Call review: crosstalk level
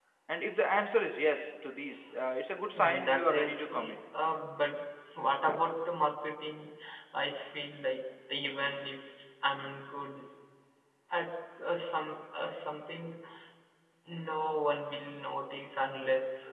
present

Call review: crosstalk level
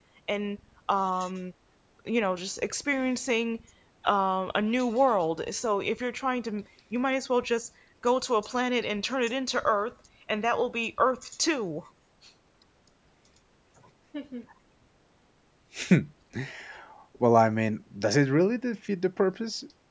none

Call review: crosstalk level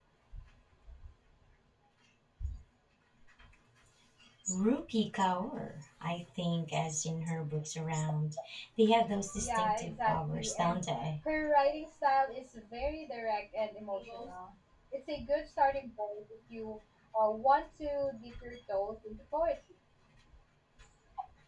present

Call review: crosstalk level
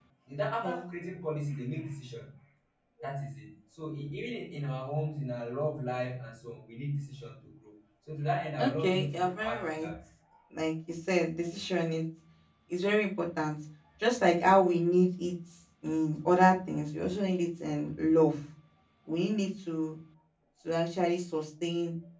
present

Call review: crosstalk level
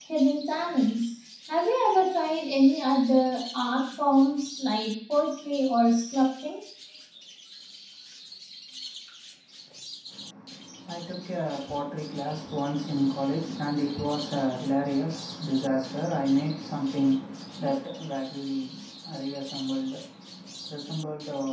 none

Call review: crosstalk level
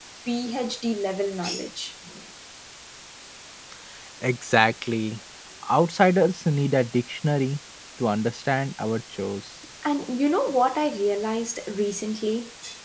none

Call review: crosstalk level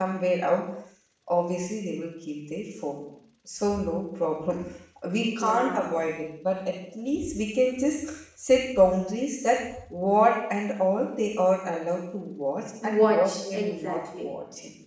present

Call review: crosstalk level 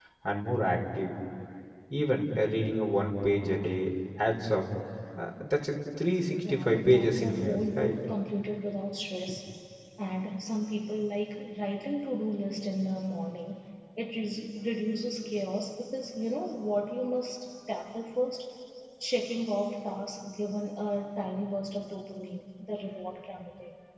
present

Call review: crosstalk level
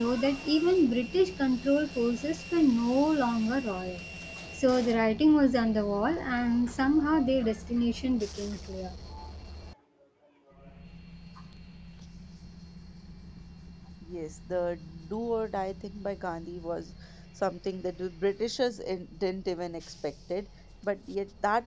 none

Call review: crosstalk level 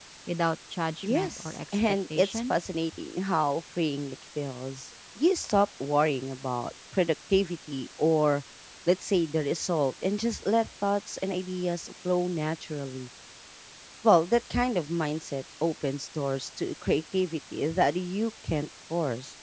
present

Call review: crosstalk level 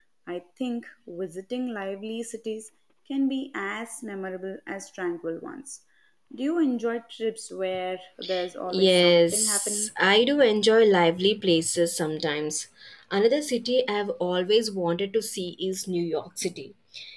present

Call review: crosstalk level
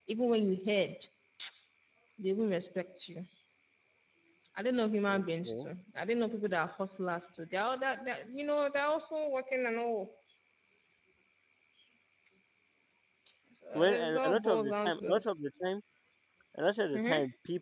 present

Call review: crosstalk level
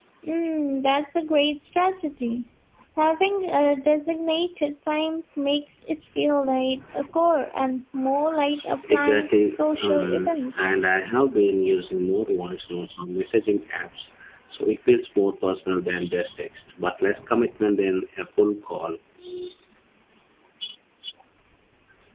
present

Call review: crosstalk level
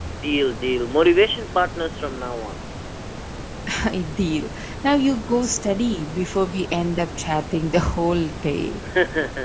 none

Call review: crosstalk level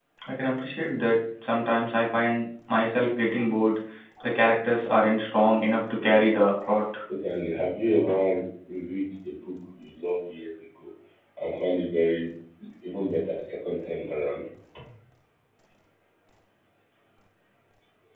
none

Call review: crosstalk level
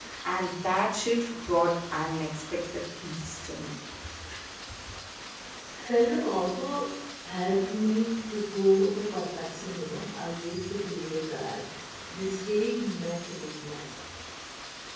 none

